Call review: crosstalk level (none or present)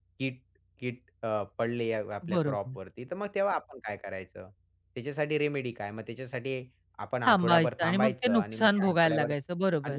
present